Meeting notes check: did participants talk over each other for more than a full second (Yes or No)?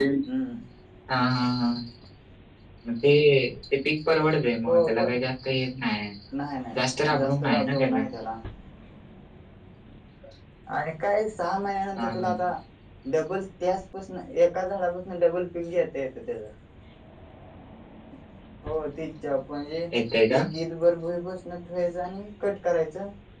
Yes